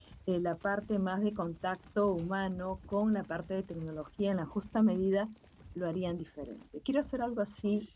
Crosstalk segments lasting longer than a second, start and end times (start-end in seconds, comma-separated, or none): none